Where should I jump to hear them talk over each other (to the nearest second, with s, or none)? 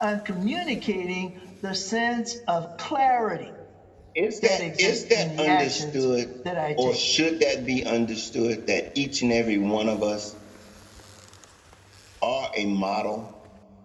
4 s